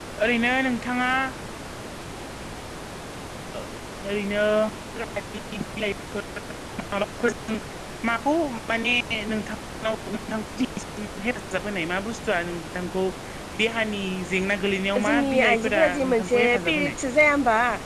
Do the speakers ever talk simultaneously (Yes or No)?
Yes